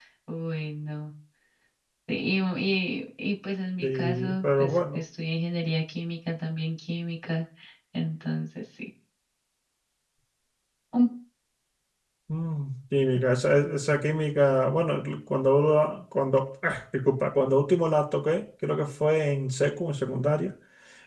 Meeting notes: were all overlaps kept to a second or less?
No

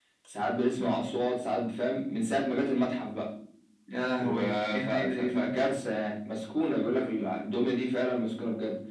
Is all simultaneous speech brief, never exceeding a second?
No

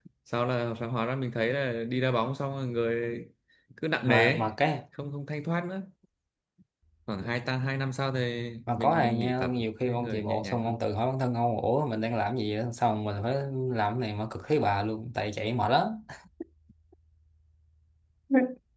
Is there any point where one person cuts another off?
Yes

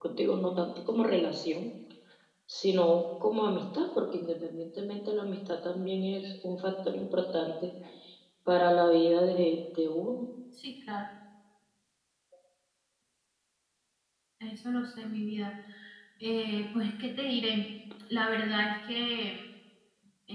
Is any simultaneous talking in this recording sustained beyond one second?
No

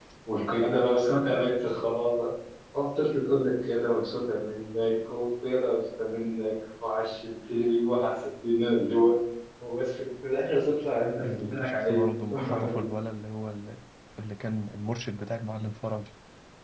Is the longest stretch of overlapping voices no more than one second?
No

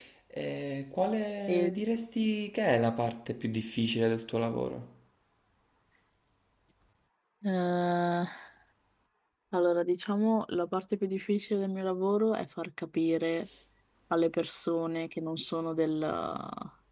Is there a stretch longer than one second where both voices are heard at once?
No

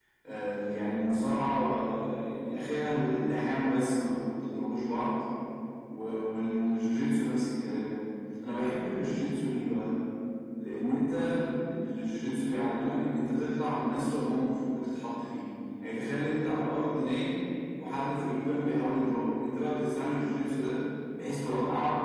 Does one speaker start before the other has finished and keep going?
No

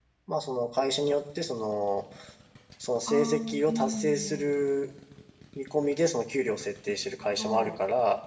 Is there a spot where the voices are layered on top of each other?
Yes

